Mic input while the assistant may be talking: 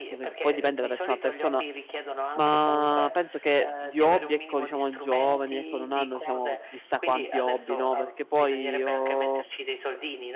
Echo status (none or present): present